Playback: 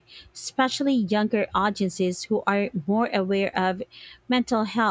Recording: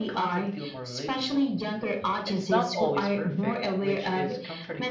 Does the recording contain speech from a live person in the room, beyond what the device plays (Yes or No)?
Yes